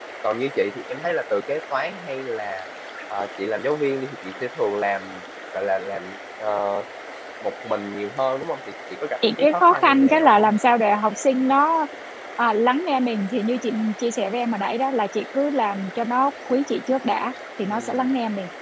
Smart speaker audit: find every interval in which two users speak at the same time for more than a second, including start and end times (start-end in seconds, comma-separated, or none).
9.3-10.5